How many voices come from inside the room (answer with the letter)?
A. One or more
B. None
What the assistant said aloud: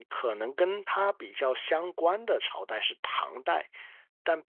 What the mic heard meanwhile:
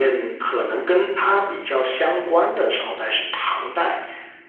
B